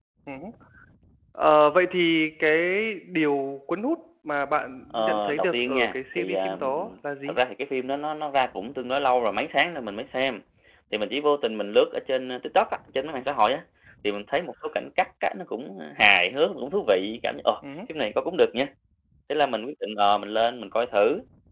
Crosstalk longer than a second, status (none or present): present